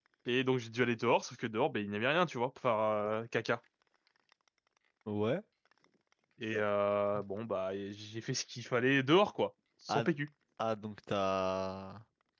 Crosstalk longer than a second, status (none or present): none